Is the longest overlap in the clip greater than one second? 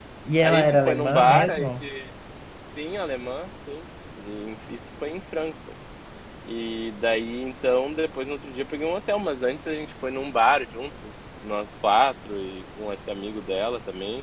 Yes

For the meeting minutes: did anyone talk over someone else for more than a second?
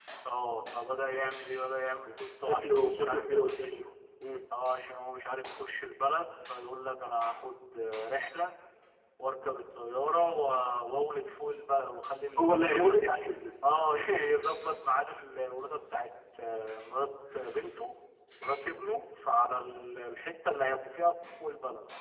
Yes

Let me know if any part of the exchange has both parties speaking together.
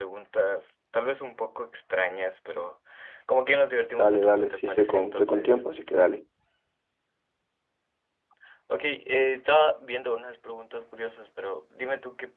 Yes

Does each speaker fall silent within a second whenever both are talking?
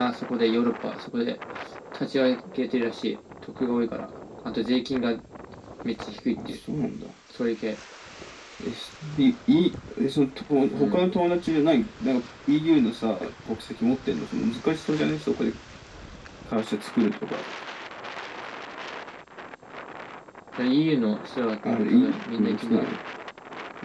No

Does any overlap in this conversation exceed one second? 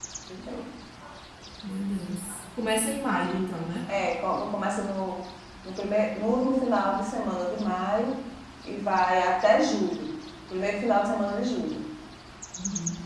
No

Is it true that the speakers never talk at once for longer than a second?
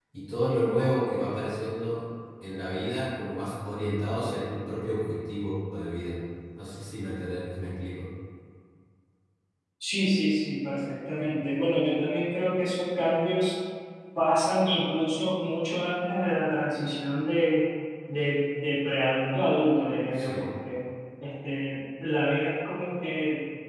Yes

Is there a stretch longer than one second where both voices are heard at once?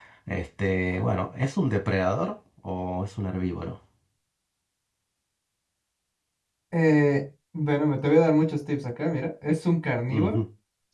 No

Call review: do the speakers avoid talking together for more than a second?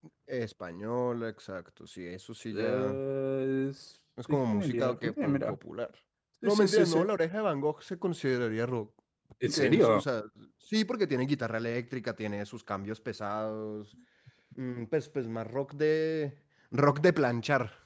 No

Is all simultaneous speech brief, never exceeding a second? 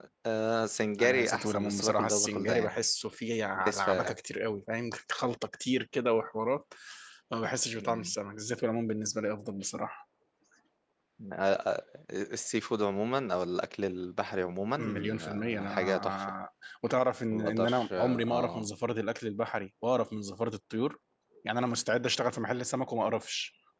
No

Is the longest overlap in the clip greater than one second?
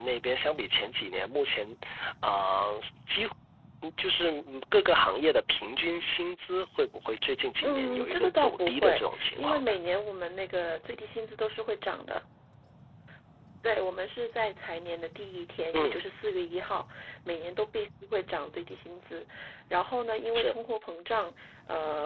Yes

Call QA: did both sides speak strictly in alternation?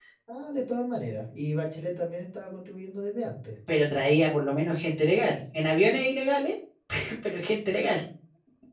Yes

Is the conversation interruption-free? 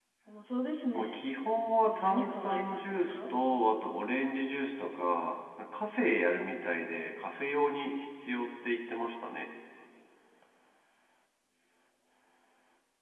No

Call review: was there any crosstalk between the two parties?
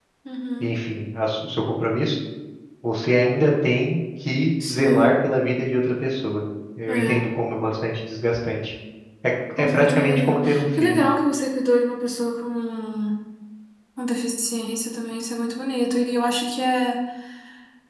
Yes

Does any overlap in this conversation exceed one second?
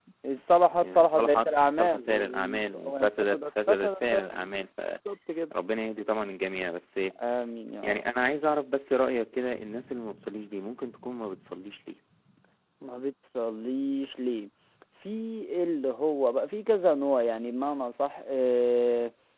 Yes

